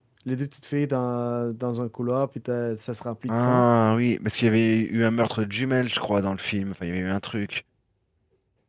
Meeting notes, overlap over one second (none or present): none